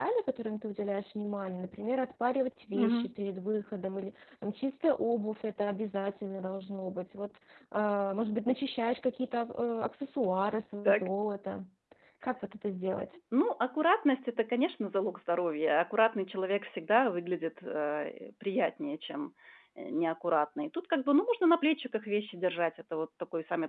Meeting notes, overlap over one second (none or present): none